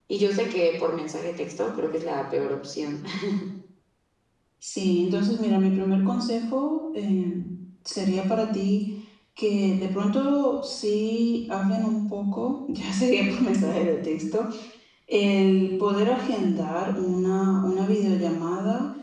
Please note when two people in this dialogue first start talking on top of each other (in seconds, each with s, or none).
none